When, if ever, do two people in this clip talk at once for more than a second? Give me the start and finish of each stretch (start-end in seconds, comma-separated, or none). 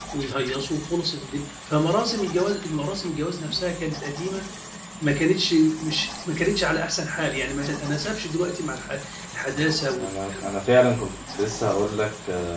none